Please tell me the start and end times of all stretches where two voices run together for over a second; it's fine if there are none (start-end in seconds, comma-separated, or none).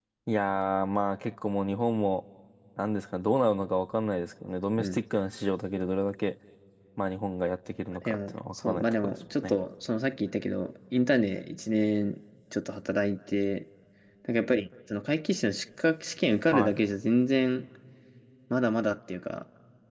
8.0-9.6